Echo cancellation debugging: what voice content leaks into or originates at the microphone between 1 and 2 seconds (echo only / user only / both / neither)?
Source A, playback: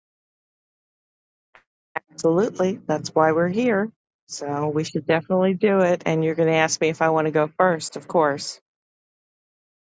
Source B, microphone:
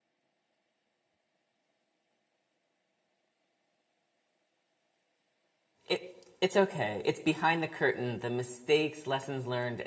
neither